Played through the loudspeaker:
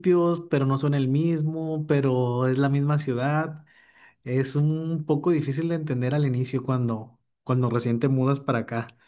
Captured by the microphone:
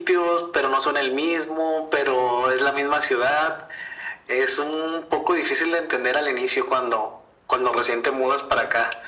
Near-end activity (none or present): none